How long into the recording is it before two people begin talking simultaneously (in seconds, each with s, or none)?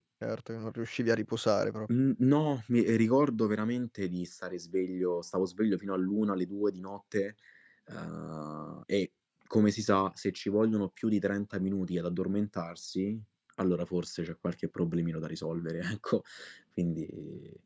none